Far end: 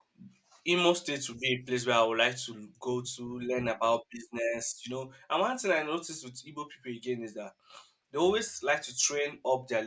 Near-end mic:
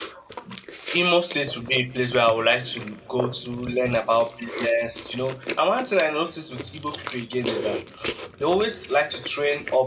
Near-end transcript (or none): none